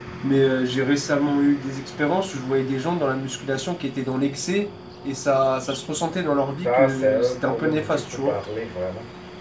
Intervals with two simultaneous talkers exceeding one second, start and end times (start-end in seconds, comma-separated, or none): 6.6-8.4